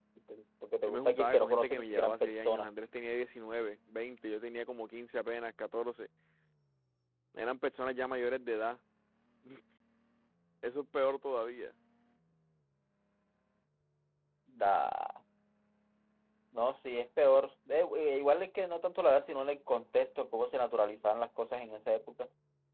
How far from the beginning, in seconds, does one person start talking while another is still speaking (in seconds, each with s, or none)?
0.9 s